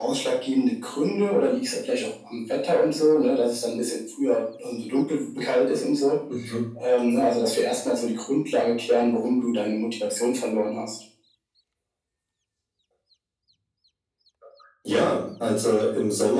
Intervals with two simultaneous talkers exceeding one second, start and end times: none

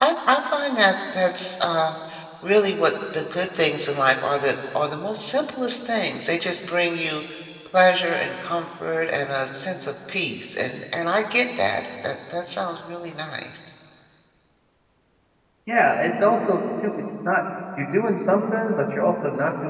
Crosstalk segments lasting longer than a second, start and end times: none

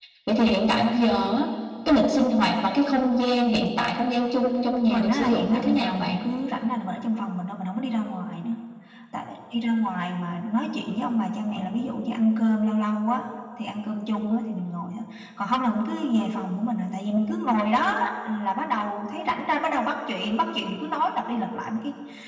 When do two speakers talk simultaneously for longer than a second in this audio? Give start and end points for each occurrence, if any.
4.9-6.2

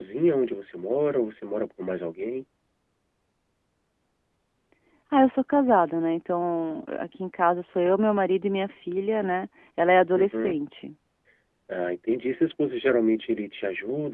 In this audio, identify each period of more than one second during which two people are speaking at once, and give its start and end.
none

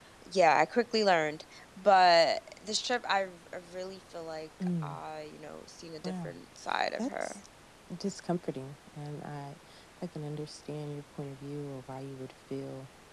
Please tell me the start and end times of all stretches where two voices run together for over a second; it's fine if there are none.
none

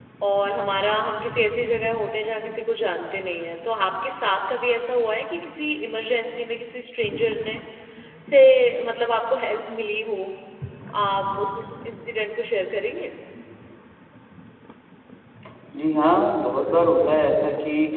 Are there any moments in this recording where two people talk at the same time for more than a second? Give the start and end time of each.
none

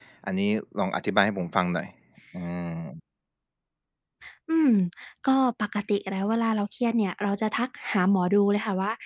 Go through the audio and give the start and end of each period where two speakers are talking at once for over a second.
none

